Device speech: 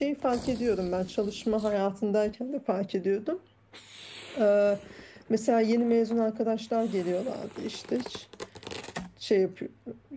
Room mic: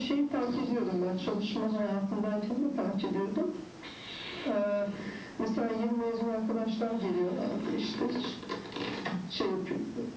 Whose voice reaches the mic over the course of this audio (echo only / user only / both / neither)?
echo only